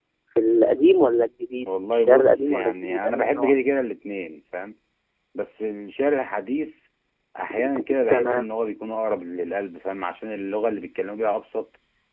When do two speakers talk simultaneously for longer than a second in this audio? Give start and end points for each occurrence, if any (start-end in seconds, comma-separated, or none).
1.6-3.5